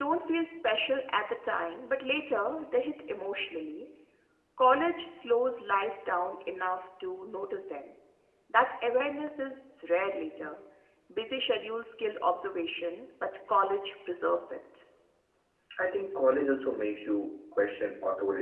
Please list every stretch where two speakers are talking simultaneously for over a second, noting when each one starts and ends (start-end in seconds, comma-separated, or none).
none